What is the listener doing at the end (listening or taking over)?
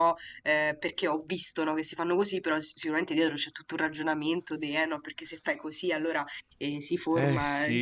listening